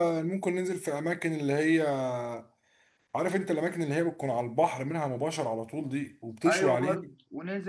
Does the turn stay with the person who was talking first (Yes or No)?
No